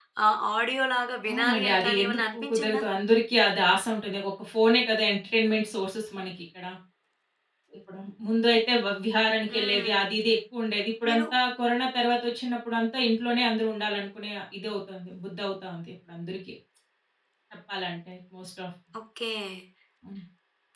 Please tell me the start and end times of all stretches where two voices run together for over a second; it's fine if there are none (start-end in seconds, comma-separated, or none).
1.3-2.8